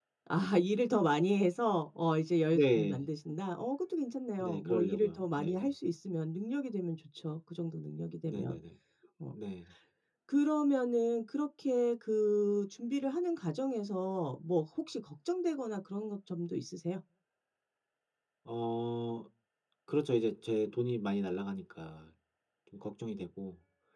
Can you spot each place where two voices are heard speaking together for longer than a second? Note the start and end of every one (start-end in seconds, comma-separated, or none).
4.4-5.7